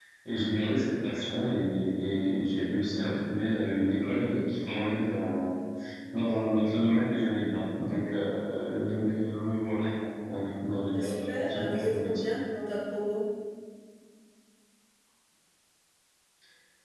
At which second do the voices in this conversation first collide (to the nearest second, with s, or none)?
11 s